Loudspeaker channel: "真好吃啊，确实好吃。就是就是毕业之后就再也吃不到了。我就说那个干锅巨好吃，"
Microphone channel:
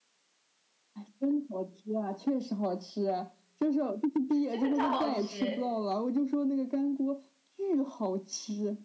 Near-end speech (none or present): present